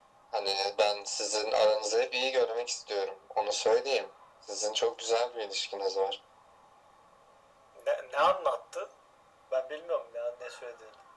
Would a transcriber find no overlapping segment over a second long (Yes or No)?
Yes